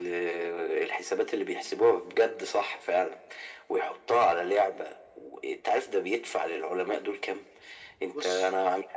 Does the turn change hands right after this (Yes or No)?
No